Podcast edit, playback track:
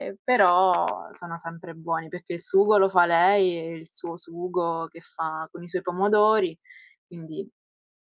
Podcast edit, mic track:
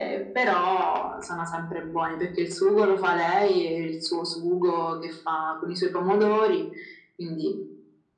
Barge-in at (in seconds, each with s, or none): none